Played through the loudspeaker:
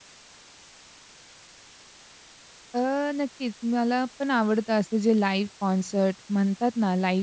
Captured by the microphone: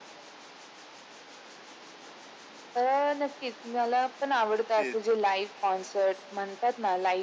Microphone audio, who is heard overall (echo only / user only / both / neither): both